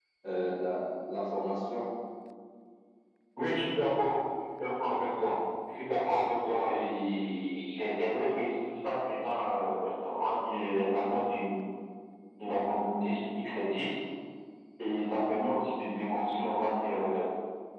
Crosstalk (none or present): none